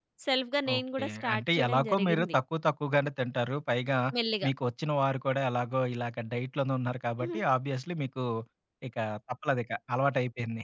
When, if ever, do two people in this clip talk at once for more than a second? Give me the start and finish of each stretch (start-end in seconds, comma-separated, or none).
0.8-2.4